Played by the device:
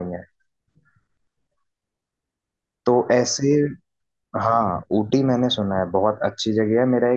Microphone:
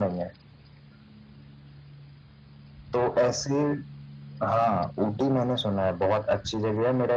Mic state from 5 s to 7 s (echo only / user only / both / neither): echo only